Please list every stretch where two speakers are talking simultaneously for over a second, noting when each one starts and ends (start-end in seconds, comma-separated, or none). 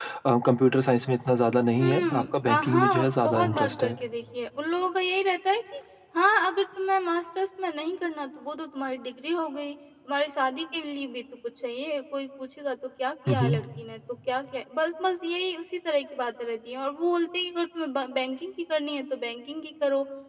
1.8-3.9